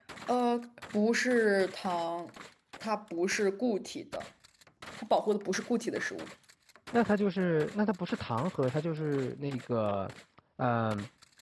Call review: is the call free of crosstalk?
Yes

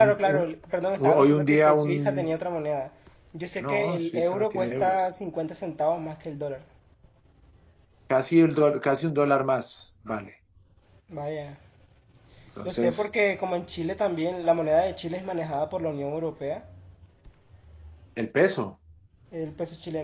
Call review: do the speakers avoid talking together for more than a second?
No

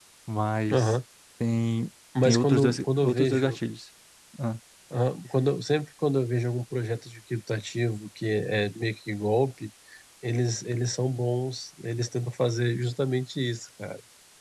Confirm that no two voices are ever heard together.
No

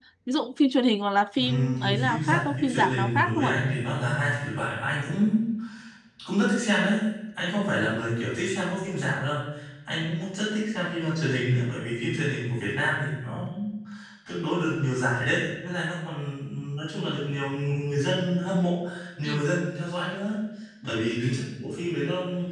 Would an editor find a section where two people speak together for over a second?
Yes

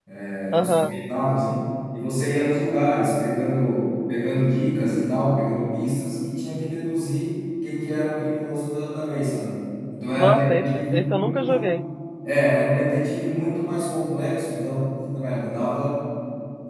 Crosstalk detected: Yes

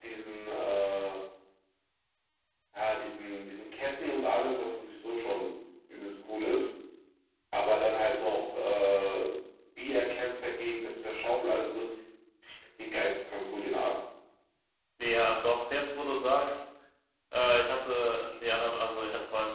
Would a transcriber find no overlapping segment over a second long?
Yes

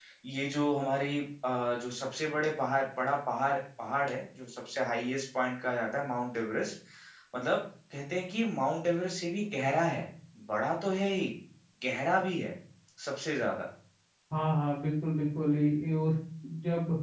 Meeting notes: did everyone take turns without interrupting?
Yes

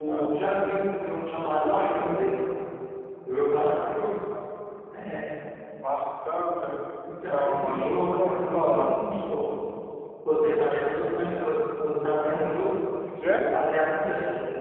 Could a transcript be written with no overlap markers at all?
No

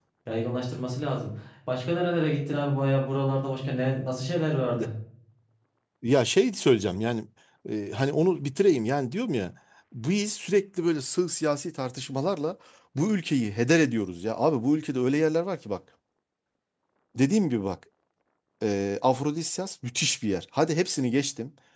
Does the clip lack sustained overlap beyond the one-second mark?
Yes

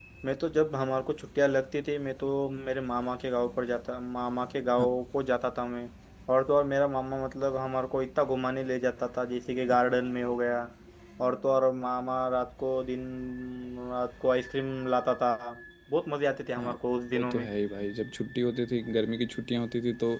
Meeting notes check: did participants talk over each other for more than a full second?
No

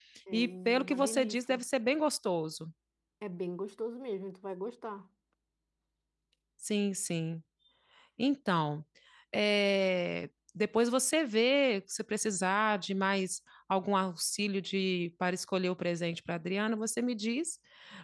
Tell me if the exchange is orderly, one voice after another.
No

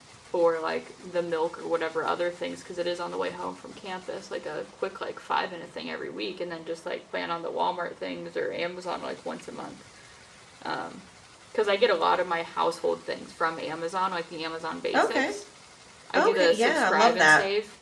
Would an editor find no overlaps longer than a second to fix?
No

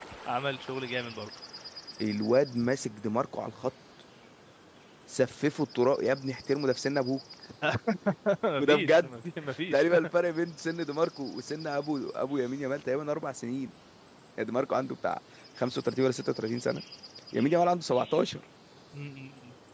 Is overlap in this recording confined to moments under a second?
Yes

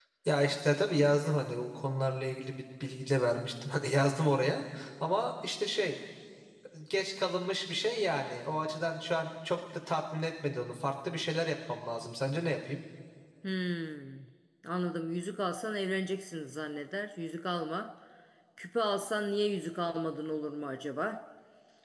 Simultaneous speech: No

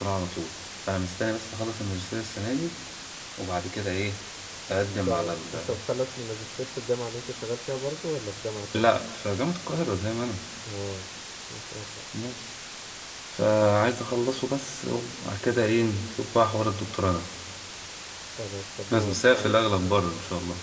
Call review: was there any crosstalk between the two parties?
Yes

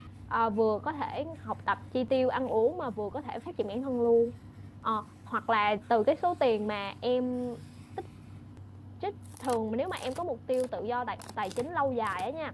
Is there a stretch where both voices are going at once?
No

